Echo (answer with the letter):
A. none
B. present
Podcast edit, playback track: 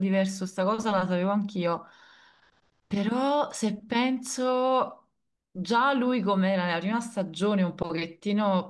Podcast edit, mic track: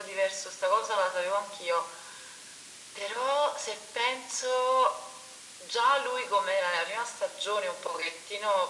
B